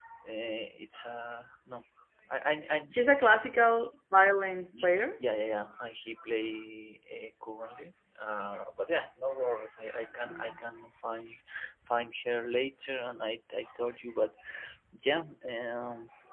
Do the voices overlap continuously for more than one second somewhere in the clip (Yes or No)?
No